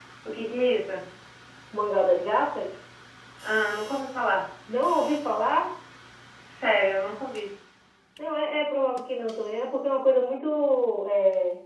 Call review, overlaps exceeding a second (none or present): none